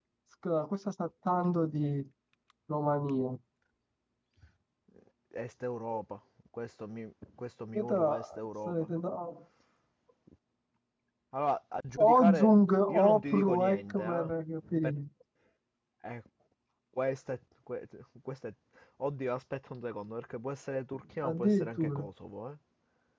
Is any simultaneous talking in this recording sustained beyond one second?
Yes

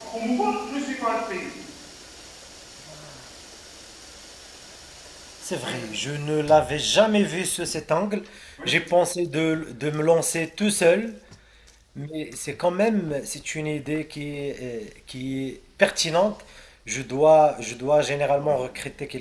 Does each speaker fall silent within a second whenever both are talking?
Yes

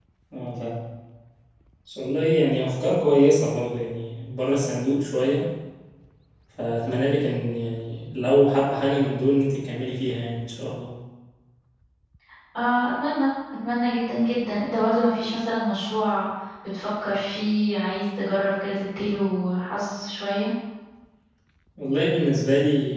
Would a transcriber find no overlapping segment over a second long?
Yes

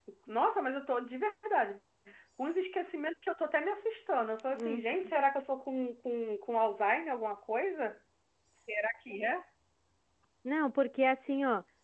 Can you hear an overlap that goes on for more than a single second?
No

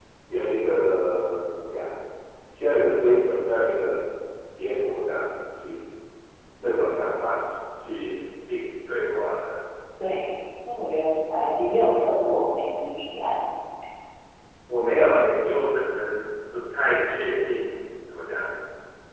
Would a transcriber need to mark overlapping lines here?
No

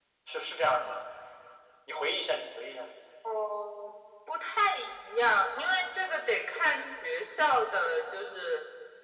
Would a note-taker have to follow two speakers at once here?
No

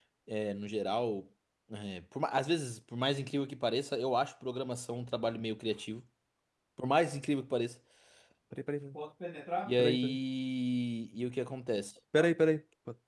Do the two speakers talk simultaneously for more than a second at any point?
No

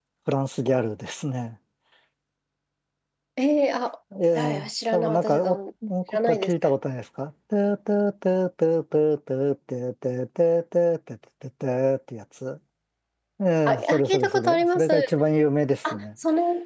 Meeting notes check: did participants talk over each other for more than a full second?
Yes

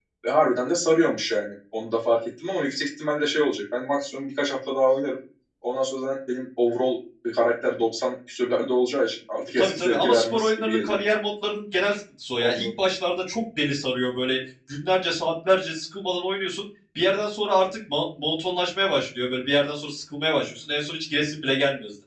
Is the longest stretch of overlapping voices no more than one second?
No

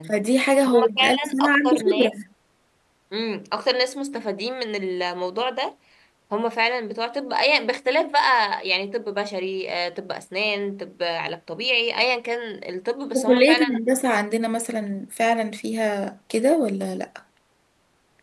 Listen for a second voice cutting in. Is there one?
Yes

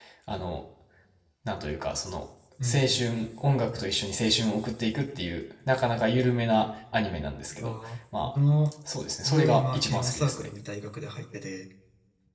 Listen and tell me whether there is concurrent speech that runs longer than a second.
Yes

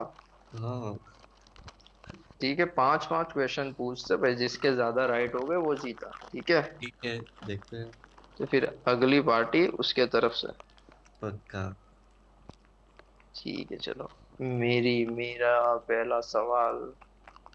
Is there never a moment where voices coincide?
Yes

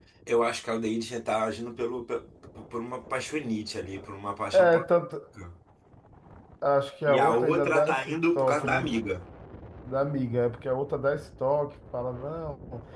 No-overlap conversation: No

